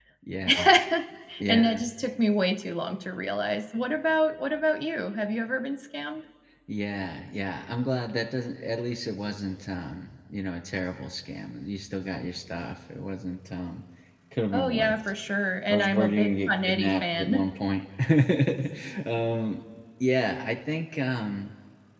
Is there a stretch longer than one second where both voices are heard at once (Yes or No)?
Yes